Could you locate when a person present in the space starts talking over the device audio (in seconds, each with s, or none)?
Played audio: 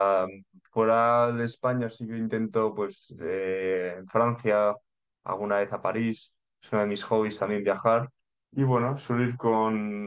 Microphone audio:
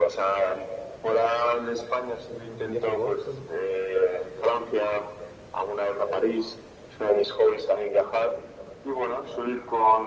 2.3 s